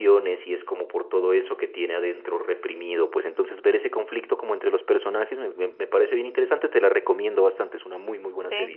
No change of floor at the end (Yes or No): No